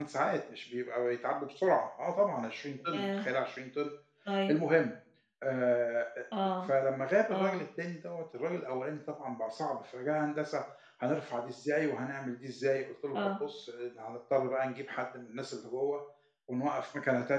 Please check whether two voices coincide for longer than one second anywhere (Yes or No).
No